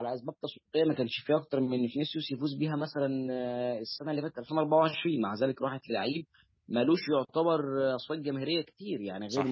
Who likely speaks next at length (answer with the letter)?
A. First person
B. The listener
A